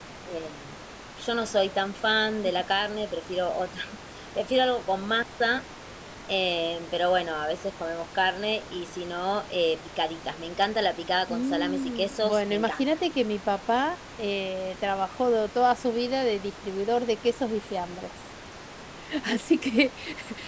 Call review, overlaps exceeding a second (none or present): present